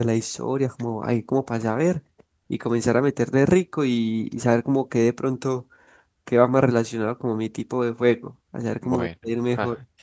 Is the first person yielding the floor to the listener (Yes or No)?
Yes